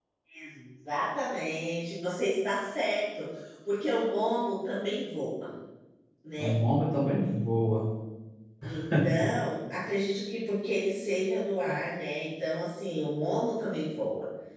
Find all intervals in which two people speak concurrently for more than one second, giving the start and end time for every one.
none

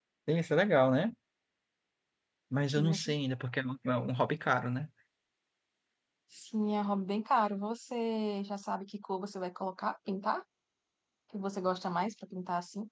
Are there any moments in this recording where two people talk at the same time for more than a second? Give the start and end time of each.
none

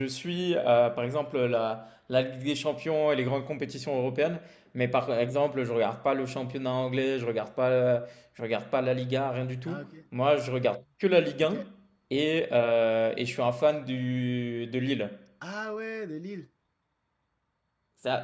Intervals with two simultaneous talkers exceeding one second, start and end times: none

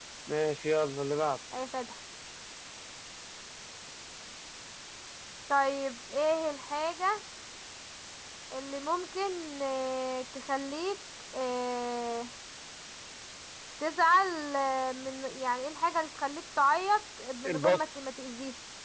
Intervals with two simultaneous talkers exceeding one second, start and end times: none

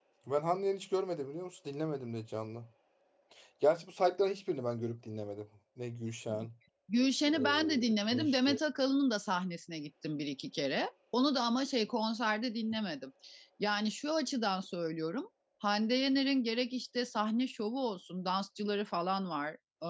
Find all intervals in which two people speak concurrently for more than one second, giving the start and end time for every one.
none

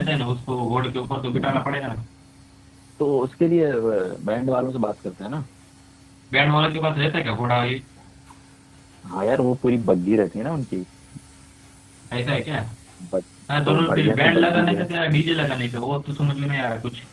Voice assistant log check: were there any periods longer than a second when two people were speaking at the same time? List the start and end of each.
13.7-14.9

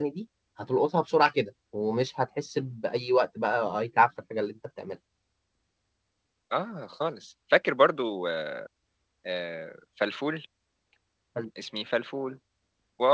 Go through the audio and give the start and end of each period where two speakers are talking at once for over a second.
none

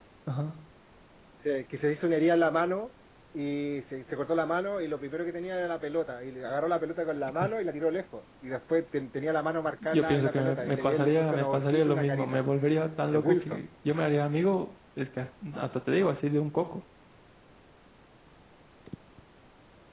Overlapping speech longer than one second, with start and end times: 9.8-12.4

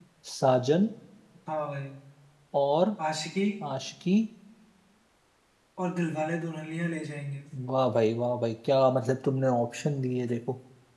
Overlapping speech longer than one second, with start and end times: none

